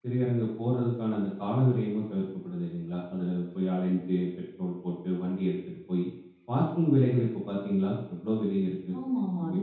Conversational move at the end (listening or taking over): taking over